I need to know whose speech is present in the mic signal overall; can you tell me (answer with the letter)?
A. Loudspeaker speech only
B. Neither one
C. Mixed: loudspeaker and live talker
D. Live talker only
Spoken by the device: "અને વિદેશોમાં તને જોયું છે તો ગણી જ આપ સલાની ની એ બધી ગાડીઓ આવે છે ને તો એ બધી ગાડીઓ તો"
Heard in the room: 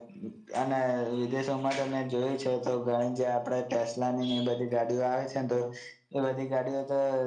A